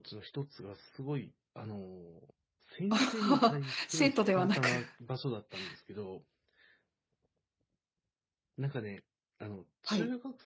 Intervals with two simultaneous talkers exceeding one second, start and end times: 2.9-4.7

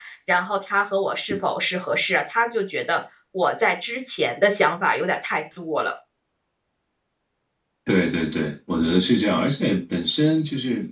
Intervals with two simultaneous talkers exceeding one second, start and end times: none

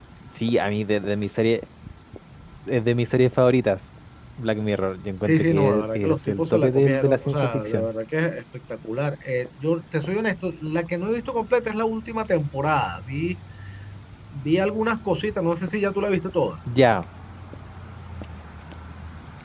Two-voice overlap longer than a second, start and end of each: 5.2-7.9

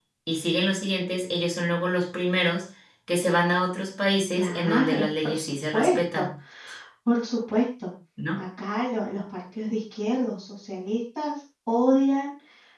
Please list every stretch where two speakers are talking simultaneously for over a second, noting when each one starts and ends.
4.4-6.3

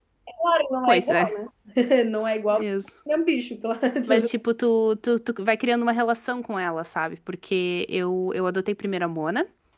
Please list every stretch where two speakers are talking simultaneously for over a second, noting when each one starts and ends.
none

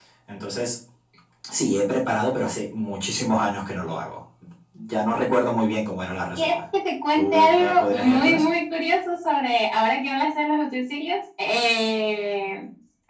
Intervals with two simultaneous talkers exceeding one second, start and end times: 7.2-8.5

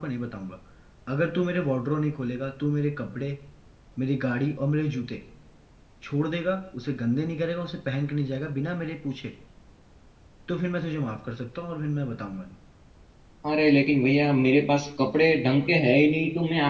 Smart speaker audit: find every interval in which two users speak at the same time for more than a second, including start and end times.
none

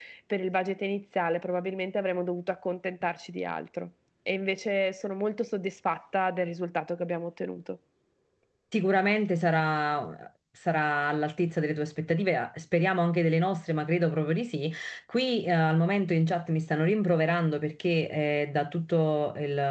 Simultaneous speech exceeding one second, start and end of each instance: none

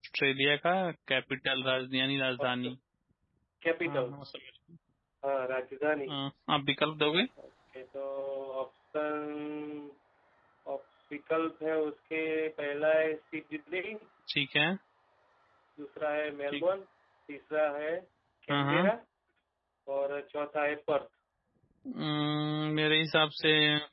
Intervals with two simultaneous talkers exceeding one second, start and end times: none

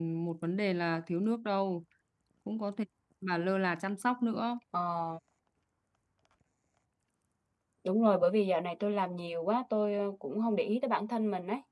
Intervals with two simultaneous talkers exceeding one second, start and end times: none

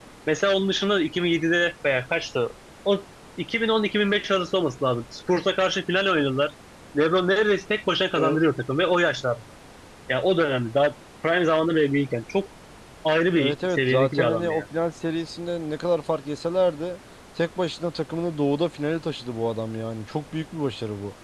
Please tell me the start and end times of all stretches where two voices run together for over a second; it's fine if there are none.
13.3-14.6

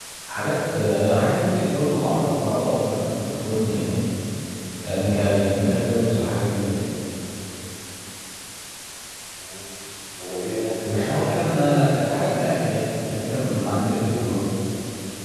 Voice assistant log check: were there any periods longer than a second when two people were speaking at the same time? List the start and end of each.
10.8-12.2

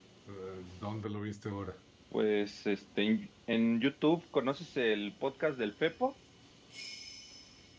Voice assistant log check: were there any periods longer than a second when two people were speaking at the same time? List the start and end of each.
none

